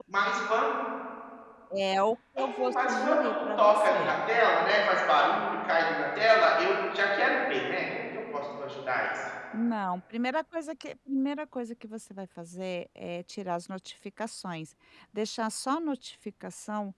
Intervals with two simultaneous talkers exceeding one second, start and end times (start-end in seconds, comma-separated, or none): 2.4-4.1